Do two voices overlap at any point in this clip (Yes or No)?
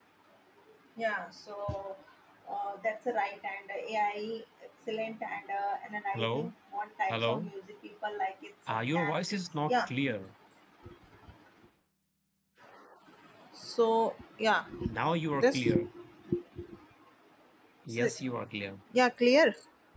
Yes